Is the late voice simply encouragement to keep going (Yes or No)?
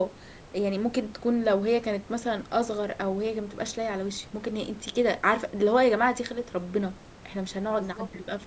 No